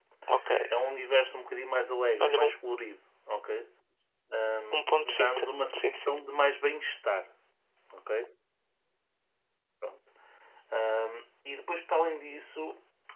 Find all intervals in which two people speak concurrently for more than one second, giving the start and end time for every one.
4.7-6.2

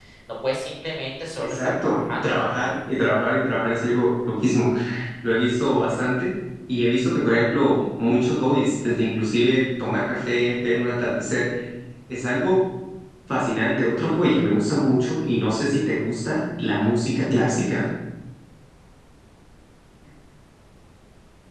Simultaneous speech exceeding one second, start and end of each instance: 1.4-2.7

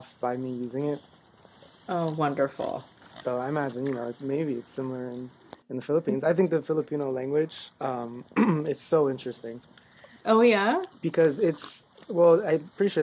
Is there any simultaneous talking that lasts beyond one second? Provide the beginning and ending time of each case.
none

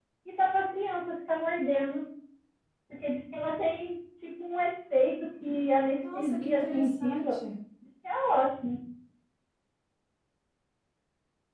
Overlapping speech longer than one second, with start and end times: 6.1-7.3

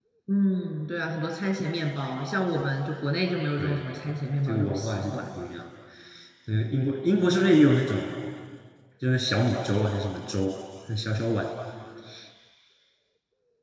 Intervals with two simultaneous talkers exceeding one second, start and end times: 3.6-5.2

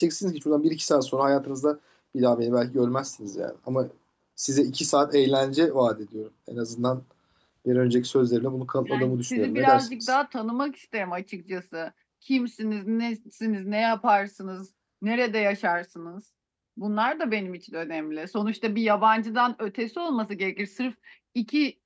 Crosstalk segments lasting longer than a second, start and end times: 8.9-10.1

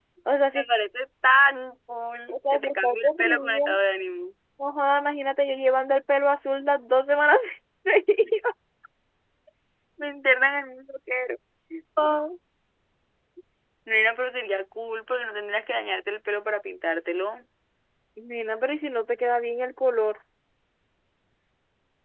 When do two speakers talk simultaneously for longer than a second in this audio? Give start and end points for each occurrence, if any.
2.3-3.6

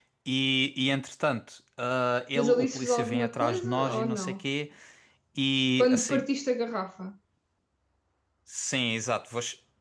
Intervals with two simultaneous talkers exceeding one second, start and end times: 2.4-4.4

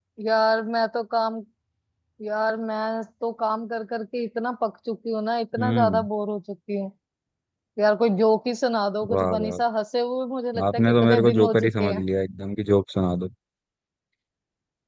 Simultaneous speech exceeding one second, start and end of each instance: 10.7-12.0

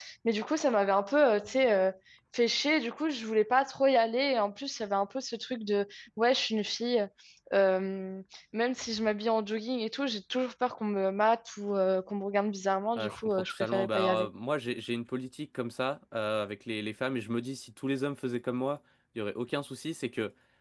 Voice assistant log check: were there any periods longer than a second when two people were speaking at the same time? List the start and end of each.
13.0-14.3

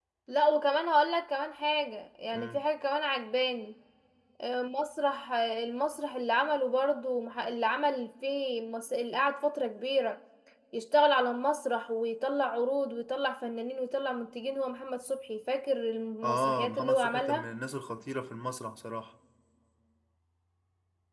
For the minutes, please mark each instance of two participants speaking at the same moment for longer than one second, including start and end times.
16.2-17.5

